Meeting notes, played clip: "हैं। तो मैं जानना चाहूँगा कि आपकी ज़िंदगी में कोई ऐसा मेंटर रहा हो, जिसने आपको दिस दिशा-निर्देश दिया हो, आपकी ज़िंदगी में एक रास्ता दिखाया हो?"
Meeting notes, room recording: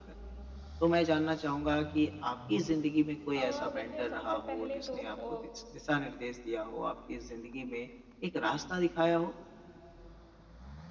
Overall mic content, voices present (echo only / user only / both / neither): both